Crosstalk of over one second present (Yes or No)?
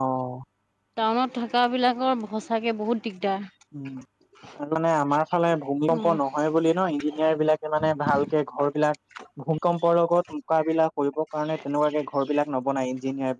No